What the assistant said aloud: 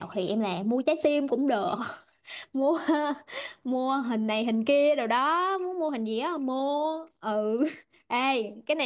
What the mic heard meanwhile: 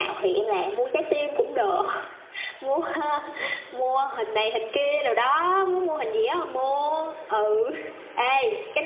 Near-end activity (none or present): none